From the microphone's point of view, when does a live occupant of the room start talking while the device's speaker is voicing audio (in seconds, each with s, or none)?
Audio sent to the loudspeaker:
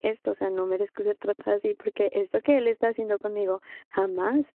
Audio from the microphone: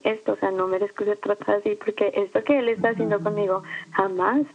2.8 s